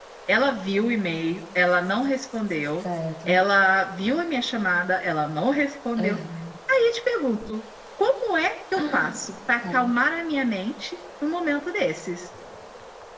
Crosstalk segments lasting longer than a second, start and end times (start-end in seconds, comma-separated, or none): none